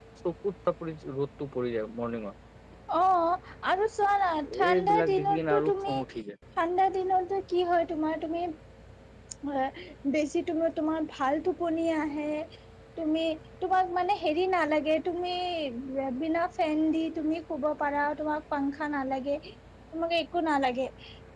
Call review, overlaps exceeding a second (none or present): present